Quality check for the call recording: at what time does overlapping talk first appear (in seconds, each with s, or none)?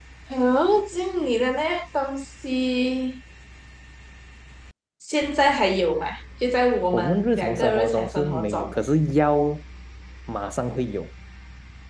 6.9 s